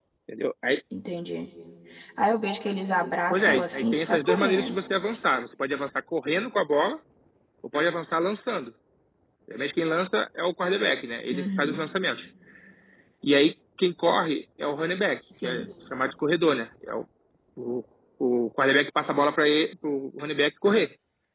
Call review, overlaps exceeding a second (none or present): present